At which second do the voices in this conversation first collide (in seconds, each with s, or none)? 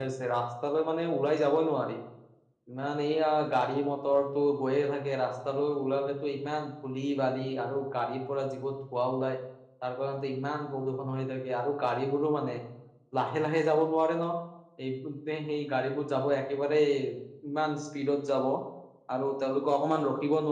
none